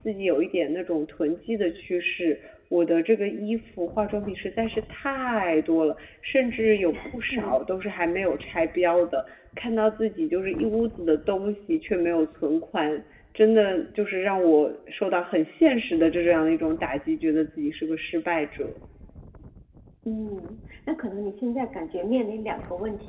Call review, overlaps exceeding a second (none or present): none